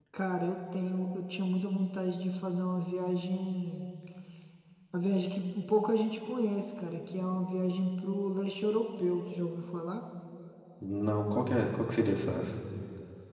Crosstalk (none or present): none